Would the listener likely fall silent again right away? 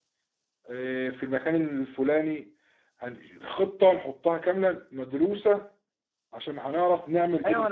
No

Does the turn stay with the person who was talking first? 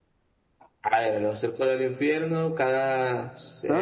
Yes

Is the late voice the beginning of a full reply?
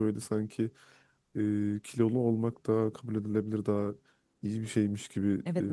Yes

